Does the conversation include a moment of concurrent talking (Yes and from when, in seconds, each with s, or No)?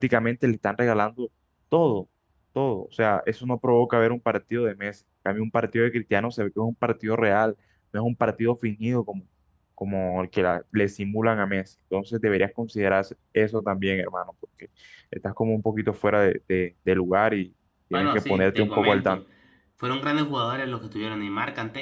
Yes, from 17.9 s